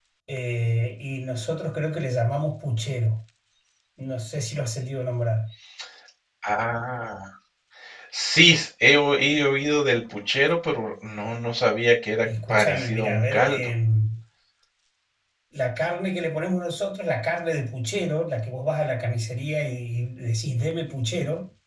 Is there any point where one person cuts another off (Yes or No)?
Yes